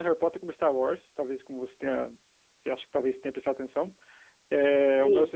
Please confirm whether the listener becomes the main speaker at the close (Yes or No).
No